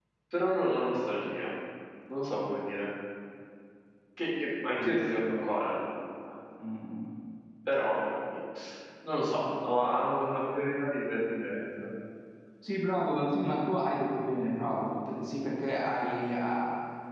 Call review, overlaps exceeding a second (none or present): none